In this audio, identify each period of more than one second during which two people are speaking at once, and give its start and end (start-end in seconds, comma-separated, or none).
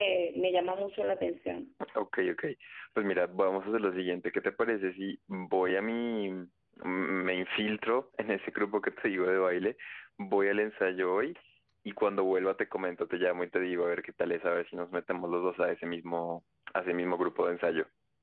none